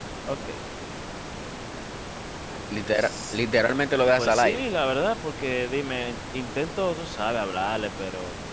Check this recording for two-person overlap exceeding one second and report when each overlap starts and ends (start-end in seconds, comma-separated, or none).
none